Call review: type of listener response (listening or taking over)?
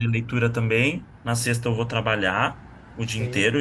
listening